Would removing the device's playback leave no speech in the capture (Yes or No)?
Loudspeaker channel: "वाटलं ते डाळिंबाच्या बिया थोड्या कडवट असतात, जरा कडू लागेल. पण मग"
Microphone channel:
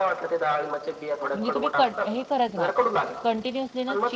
No